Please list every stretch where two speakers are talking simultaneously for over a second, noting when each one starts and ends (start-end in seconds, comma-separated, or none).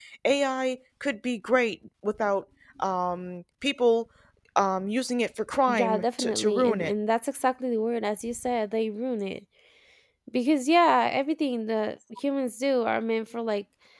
5.7-6.9